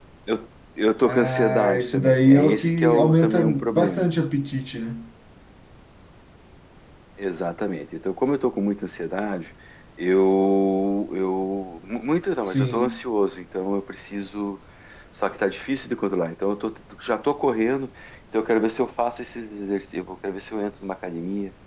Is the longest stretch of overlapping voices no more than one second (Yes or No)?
No